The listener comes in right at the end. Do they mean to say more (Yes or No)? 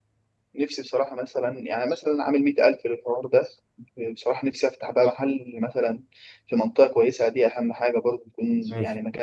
Yes